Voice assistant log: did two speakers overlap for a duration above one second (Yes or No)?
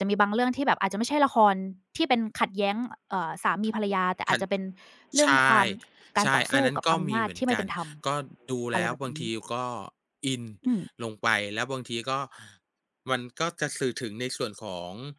Yes